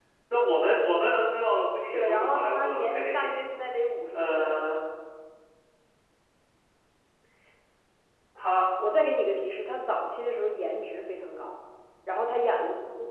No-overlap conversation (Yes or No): No